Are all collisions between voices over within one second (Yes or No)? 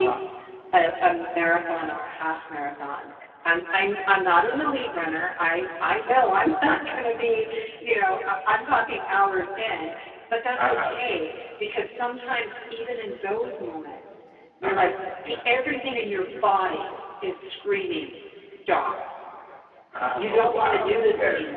No